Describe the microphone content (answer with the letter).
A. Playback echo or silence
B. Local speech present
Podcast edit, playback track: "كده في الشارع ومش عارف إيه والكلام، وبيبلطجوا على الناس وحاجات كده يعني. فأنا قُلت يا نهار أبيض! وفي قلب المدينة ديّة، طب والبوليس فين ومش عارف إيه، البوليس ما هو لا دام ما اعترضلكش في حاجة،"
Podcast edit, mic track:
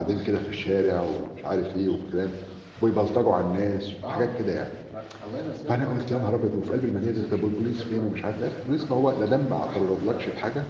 B